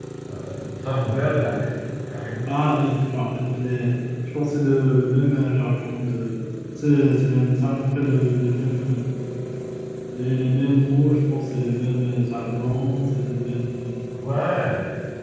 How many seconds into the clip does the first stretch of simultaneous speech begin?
none

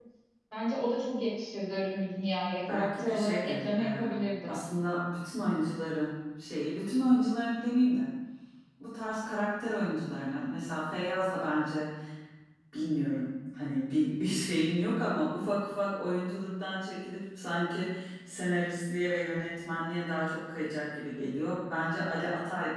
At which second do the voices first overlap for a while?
3 s

